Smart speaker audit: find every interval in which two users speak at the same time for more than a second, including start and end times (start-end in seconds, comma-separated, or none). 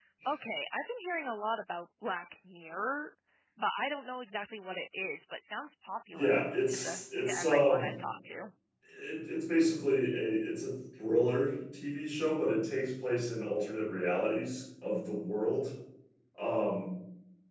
6.1-7.9